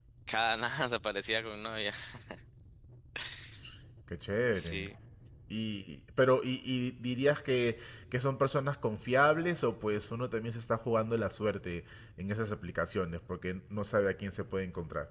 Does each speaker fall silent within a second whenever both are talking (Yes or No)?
Yes